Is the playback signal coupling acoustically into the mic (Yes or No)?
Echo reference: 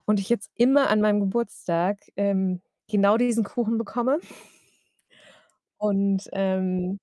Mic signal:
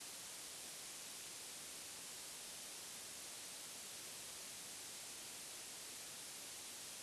No